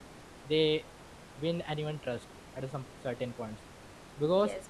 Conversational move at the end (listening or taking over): taking over